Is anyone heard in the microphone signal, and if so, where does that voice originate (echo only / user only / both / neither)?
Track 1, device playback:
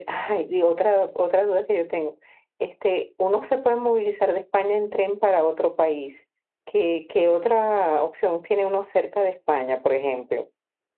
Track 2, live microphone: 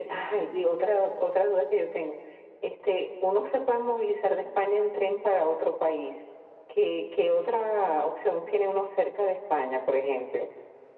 echo only